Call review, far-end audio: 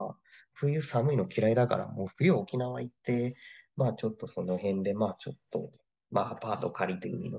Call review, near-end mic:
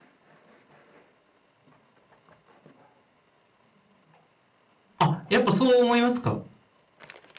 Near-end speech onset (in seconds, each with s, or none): 5.0 s